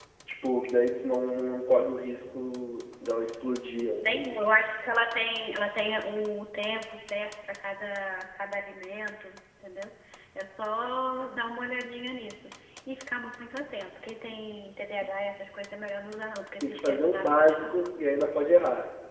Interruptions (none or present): present